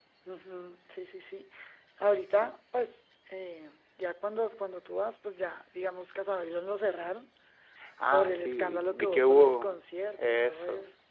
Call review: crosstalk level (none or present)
present